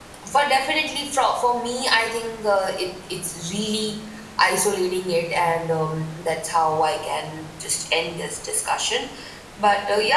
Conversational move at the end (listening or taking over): listening